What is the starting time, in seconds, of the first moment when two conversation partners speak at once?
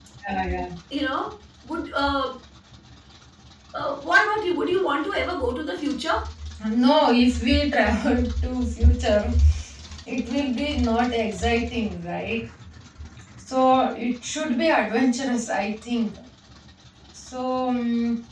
none

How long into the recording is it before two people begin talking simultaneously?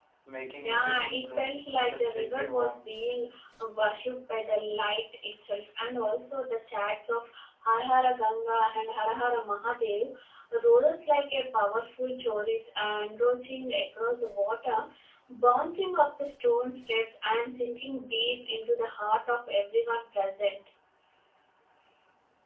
0.6 s

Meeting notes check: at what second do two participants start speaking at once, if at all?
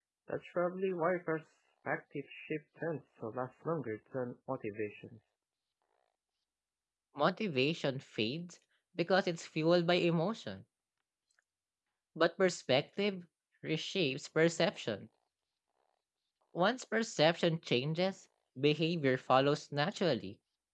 none

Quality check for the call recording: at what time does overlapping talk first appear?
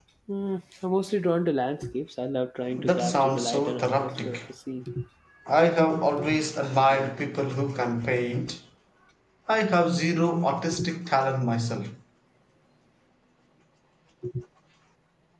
2.7 s

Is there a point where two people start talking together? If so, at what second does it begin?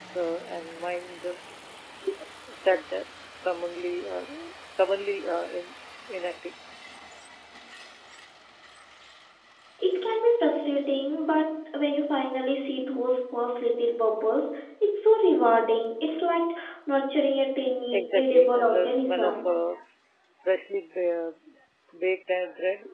17.9 s

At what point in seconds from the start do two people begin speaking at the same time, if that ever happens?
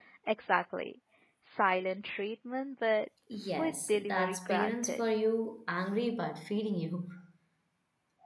3.3 s

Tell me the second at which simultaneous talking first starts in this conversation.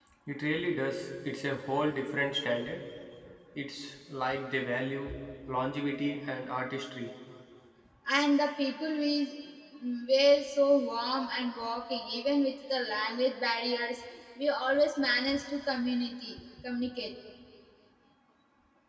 none

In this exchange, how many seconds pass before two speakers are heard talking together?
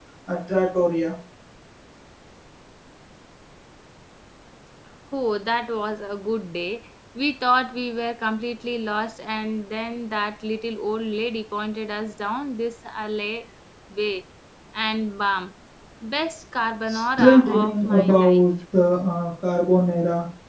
16.9 s

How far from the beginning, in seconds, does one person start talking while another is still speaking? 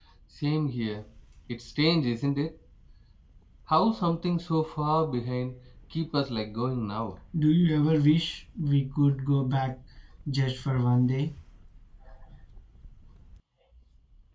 none

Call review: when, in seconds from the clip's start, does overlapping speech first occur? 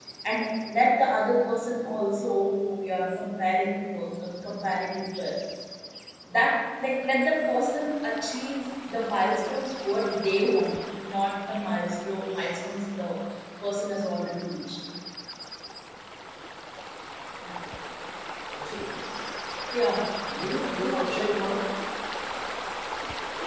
none

